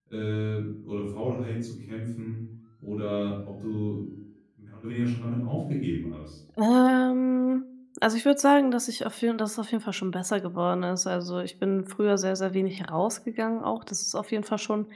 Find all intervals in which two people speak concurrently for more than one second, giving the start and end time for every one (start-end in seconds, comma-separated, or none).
none